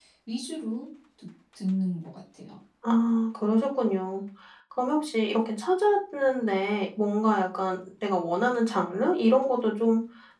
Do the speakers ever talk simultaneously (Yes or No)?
No